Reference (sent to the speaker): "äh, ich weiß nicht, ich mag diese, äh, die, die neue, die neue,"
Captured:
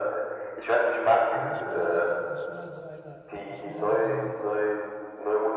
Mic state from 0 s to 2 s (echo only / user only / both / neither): both